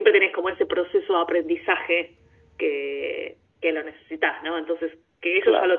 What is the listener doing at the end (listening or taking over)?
listening